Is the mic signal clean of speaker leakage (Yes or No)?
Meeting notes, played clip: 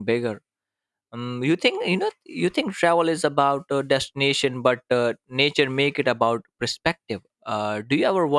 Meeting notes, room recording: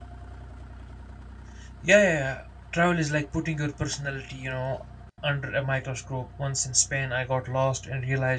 Yes